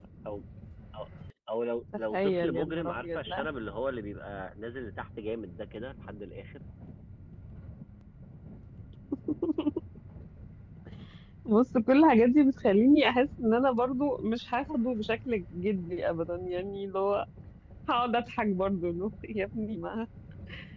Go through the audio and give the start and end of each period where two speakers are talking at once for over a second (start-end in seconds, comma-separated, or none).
2.1-3.5